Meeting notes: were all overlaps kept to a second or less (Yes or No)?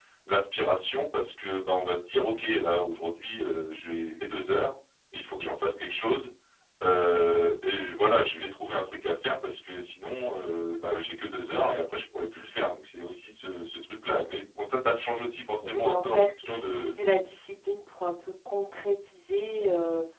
No